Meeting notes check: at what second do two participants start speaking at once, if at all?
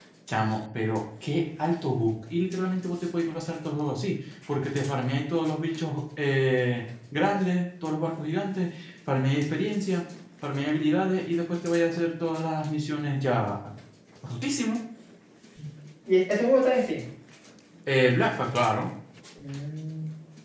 none

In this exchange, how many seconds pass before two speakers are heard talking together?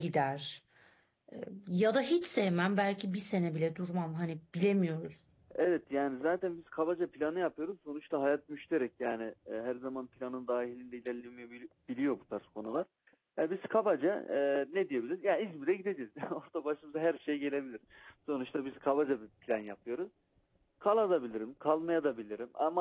none

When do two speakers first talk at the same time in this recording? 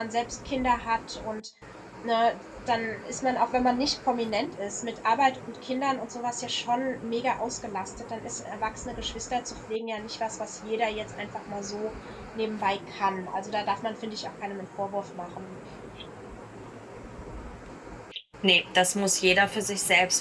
none

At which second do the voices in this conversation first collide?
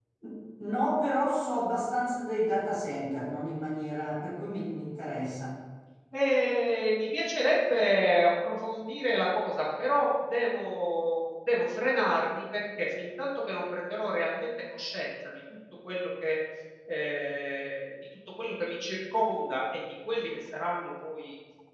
none

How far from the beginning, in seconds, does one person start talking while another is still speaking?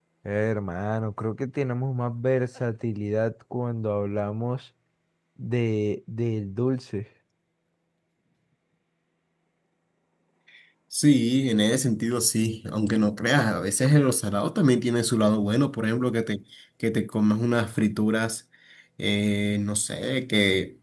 none

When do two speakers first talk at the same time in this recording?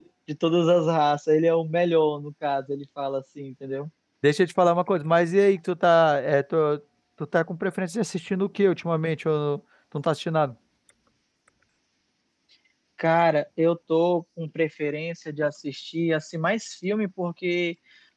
none

